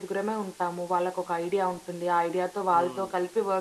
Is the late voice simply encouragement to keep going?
Yes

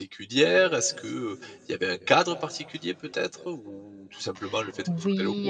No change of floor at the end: No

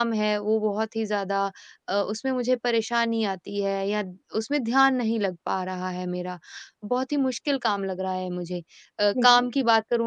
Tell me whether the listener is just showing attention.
Yes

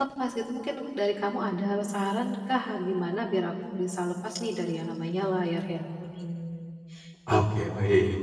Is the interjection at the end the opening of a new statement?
Yes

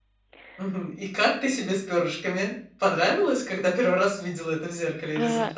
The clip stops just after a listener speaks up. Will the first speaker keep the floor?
No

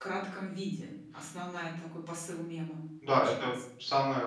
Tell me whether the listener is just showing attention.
No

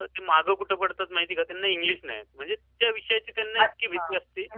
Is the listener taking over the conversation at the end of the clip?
Yes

